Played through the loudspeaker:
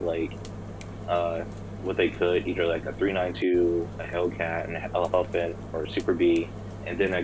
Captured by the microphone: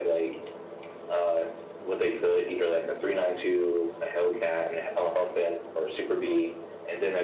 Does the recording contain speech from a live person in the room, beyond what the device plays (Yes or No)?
No